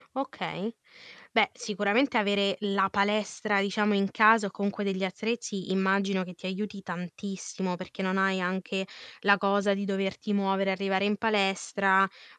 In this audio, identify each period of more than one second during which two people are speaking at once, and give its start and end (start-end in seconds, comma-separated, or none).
none